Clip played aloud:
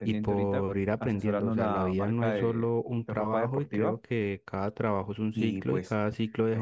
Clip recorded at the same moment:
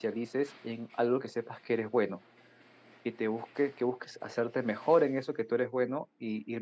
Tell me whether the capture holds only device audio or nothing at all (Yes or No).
No